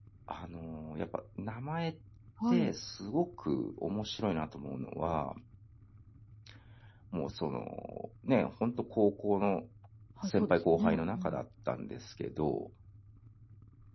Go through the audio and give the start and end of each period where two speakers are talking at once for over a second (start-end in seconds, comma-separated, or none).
10.2-11.4